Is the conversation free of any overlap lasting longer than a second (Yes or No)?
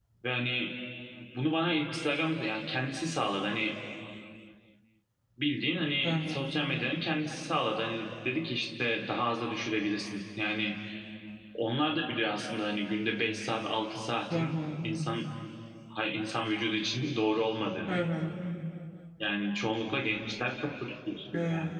Yes